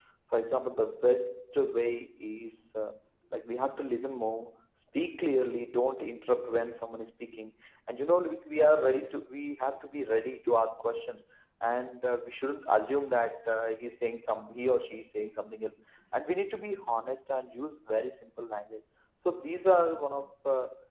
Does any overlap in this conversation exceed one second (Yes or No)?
No